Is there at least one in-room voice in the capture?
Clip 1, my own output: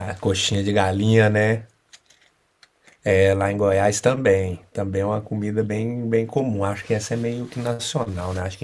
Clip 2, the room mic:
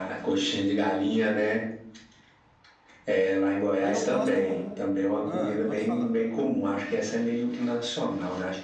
Yes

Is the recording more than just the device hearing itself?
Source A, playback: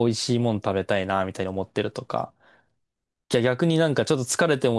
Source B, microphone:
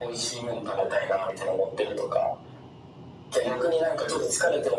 No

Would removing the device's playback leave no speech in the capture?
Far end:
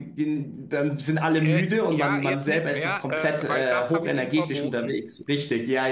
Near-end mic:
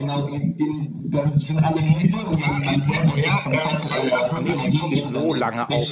No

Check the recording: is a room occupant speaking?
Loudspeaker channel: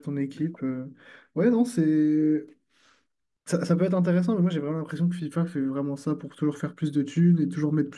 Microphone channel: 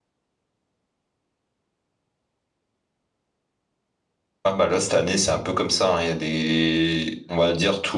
Yes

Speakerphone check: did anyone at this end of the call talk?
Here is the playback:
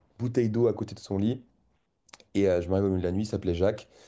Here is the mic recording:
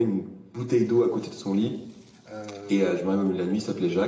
Yes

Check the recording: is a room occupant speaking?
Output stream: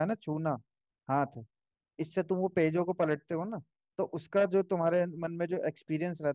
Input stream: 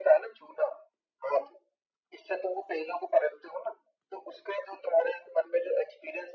No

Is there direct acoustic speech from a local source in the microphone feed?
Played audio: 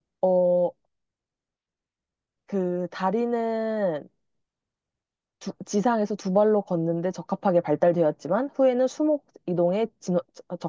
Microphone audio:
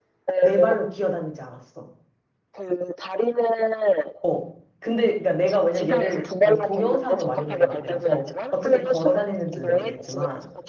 Yes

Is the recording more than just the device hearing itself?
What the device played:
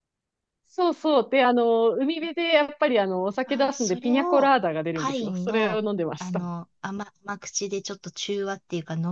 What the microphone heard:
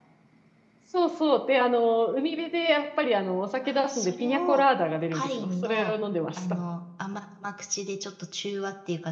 No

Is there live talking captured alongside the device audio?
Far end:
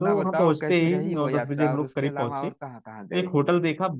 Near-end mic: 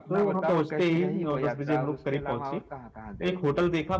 No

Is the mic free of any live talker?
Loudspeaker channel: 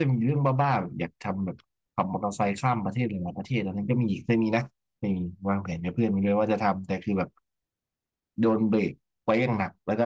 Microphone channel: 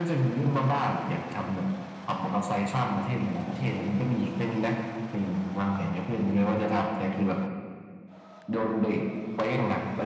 Yes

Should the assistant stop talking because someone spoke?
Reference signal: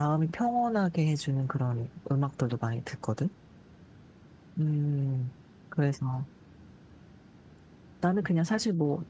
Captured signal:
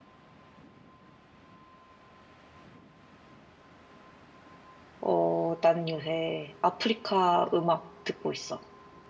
Yes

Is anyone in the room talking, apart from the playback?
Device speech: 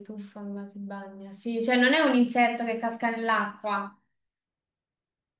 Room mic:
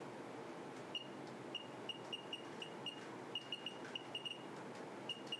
No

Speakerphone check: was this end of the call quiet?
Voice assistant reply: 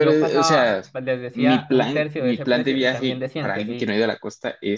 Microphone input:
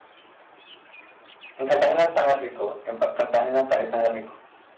No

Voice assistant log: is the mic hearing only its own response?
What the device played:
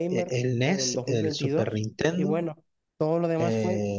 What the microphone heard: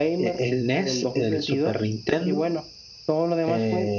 Yes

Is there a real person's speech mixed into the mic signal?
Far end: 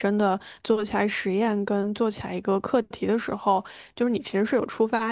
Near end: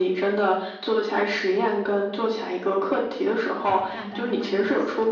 Yes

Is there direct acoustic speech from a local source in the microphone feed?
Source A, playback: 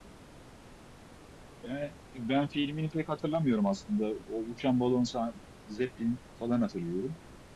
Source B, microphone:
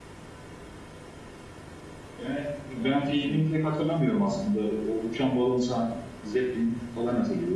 Yes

